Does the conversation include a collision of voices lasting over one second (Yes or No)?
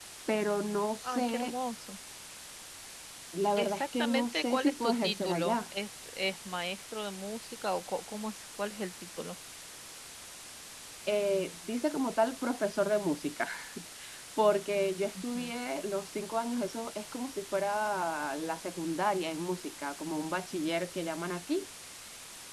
Yes